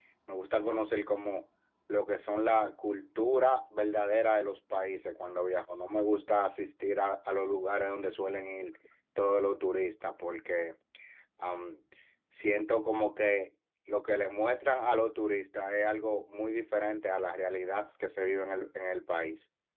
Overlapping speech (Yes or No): No